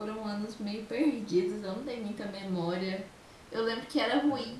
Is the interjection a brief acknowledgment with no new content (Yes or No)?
Yes